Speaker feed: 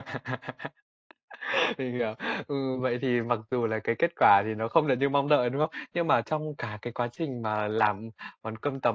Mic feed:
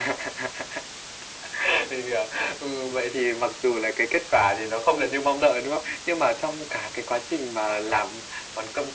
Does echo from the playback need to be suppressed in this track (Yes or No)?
Yes